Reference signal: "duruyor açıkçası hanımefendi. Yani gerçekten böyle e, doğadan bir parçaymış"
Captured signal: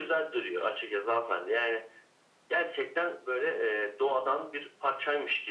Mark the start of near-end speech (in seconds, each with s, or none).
none